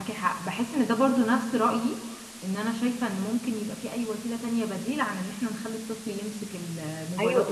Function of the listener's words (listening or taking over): taking over